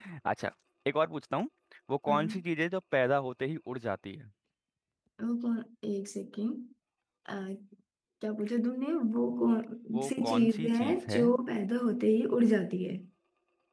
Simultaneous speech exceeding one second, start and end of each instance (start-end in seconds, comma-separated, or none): 9.9-11.2